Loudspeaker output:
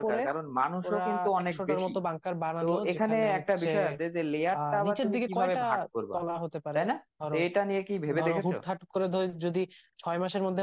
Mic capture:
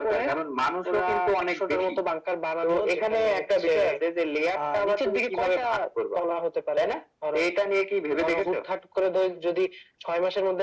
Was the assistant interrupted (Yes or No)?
No